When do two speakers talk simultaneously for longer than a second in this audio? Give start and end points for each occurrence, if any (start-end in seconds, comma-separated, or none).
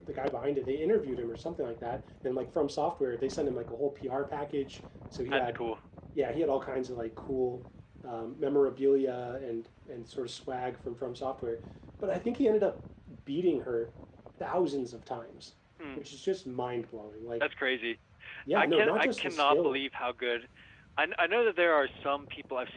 18.6-19.8